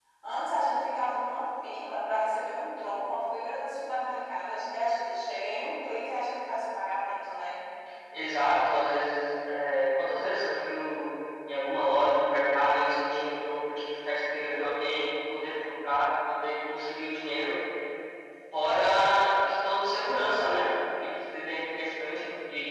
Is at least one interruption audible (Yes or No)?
No